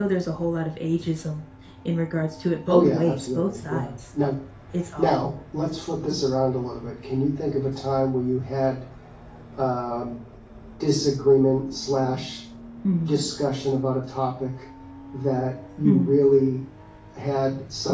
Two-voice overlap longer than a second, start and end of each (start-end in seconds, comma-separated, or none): 2.7-3.9